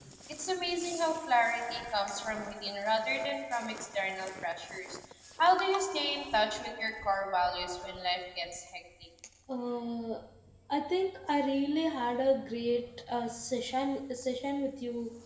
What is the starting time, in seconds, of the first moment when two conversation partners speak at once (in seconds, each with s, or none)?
none